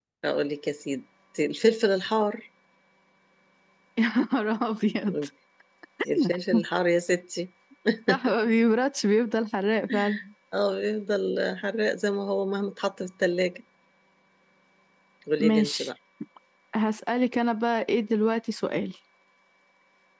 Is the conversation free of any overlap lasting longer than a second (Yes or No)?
Yes